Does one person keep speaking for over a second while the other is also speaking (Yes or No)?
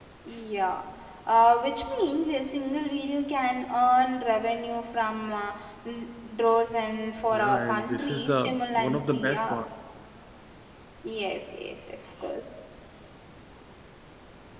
Yes